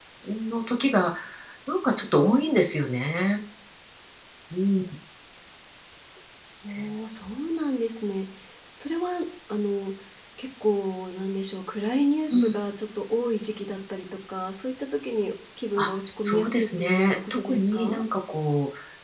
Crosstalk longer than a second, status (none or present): present